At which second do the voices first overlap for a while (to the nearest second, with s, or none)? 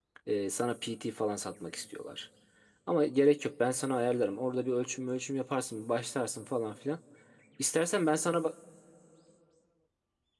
none